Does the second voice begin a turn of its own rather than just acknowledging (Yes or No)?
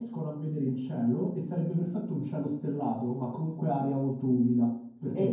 Yes